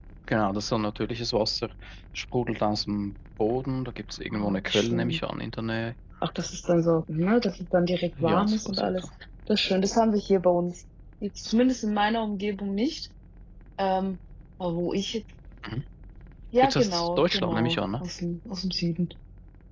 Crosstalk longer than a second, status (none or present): present